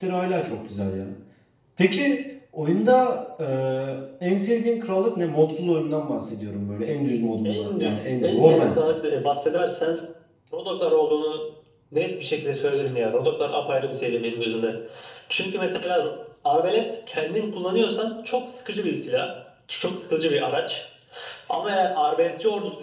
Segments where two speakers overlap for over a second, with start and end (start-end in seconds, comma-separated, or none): 7.4-8.8